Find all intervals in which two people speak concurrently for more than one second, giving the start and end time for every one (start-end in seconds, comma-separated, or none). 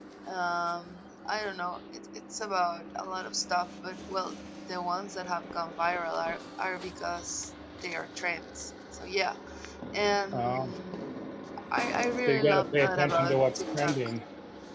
12.3-14.0